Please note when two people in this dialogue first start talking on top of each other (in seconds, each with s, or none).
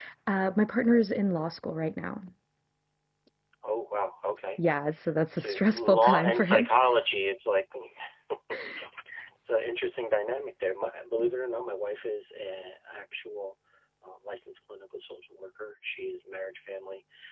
5.3 s